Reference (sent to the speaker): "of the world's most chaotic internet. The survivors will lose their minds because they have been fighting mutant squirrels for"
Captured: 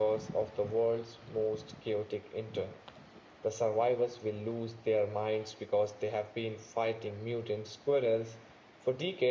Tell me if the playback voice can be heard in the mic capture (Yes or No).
Yes